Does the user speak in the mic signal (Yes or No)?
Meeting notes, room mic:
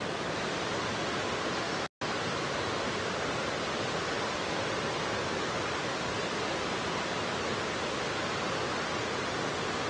No